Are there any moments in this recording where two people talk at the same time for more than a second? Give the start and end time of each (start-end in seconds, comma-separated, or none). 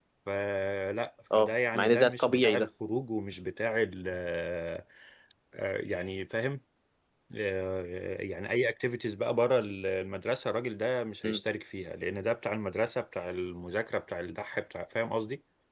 1.3-2.7